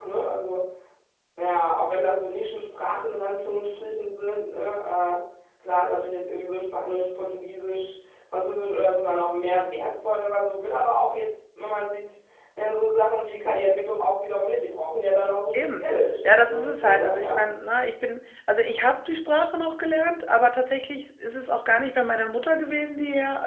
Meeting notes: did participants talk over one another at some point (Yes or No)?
Yes